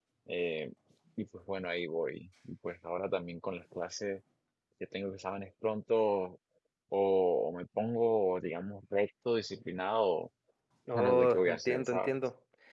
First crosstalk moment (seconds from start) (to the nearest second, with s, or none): 11 s